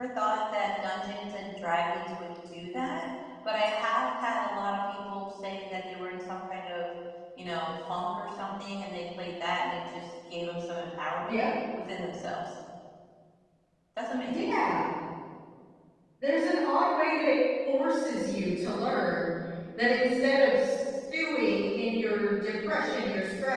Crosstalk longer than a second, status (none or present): none